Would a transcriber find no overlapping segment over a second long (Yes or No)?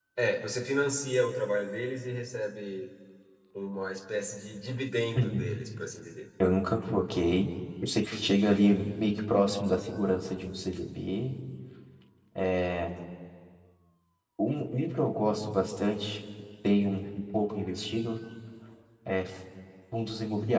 Yes